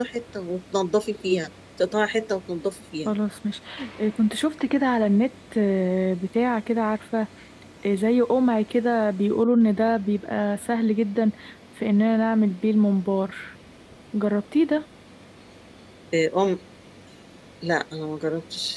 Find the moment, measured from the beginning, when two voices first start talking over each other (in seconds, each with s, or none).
none